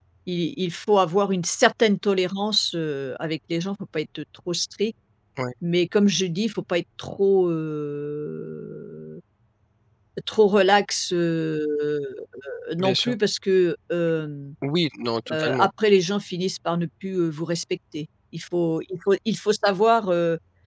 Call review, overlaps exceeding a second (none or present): none